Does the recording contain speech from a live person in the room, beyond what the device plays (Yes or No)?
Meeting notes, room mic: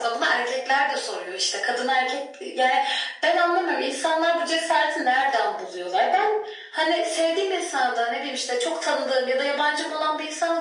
No